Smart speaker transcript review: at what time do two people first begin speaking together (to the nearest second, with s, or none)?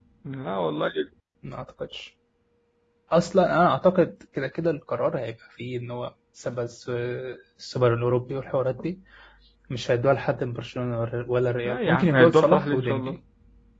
12 s